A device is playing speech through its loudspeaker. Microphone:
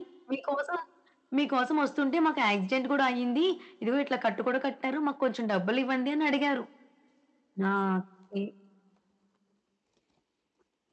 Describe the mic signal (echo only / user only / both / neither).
echo only